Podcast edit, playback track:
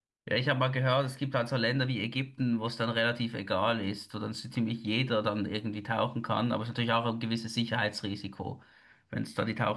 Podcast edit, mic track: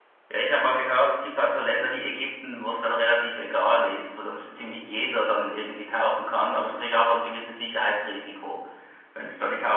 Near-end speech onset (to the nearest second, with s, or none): none